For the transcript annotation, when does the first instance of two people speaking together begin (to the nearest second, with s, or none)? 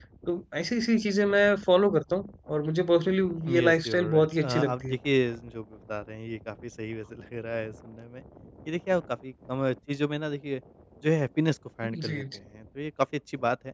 4 s